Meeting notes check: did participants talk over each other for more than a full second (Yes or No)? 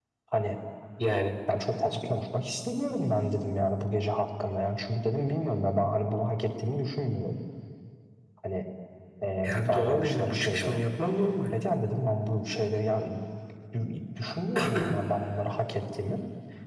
Yes